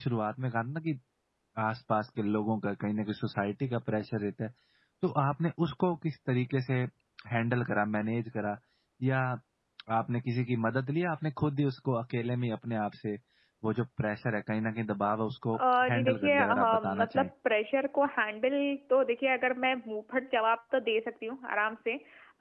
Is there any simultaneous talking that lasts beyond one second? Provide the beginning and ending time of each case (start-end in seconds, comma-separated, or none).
15.5-17.3